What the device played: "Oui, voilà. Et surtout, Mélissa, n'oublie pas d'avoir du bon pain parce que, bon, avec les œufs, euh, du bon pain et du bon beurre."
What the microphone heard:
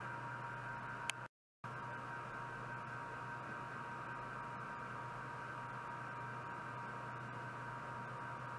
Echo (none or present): none